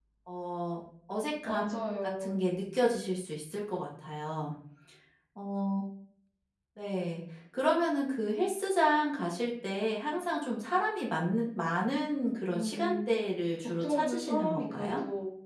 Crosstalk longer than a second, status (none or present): present